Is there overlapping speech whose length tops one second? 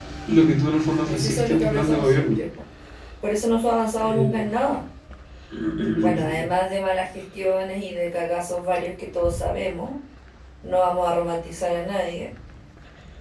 Yes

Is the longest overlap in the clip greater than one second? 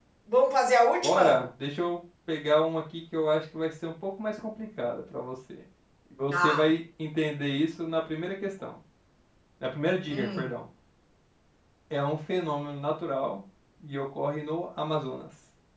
No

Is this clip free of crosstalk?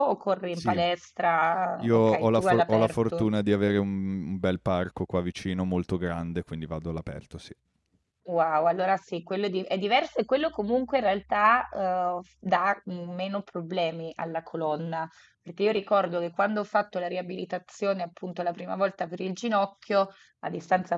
No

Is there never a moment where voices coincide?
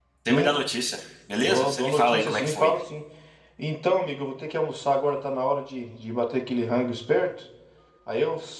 No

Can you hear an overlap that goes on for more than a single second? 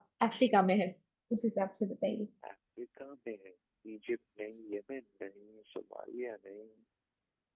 No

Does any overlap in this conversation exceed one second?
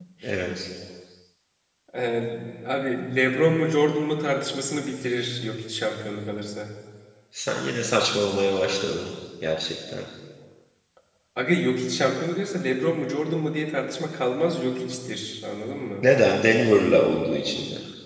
No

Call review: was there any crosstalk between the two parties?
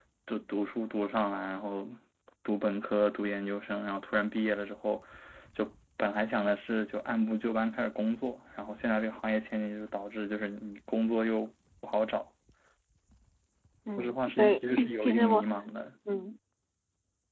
Yes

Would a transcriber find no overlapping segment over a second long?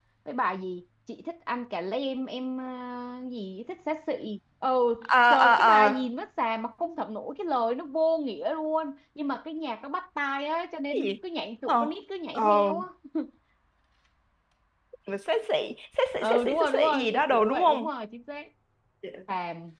No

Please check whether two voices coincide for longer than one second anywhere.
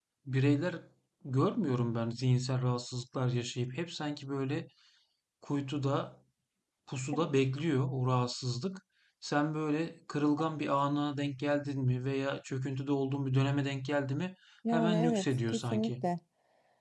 Yes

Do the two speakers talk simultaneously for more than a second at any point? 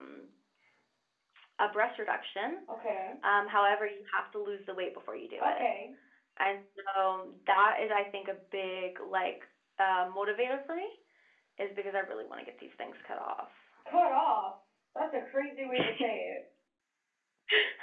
No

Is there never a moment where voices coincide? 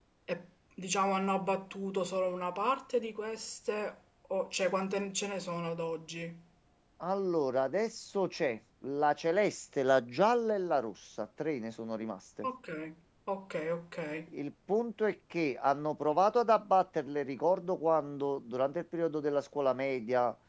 Yes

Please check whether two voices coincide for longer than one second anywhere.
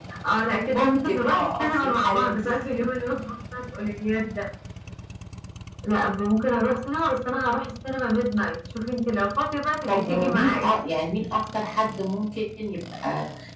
Yes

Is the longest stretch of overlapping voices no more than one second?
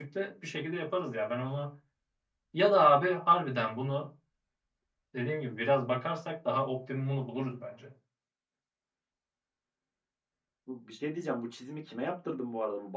Yes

